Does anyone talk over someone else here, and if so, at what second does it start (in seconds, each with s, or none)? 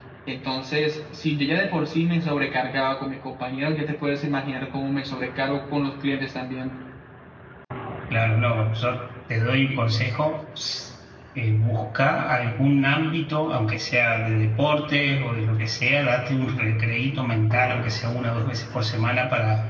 none